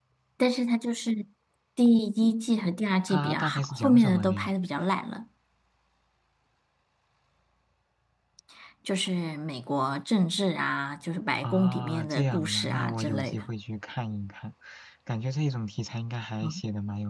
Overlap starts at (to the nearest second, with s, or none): 3 s